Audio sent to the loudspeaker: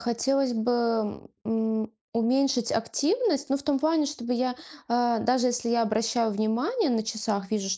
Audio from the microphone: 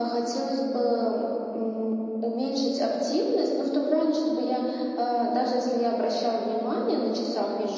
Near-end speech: none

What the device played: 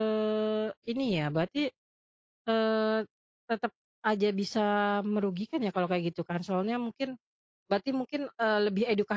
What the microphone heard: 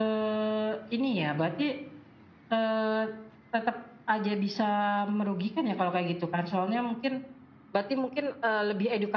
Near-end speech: none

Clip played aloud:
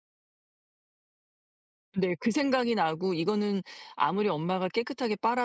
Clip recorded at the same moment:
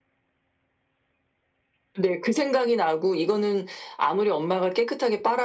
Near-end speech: none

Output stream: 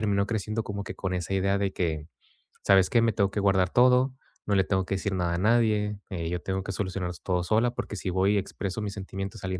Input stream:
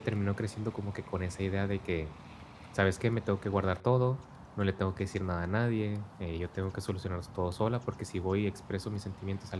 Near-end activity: none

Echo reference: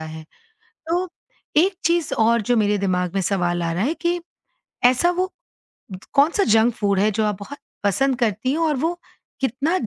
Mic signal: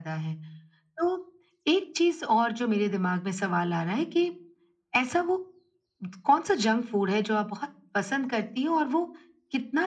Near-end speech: none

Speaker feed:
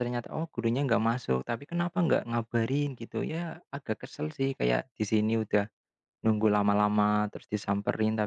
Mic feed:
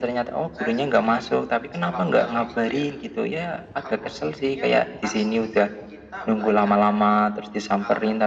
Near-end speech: present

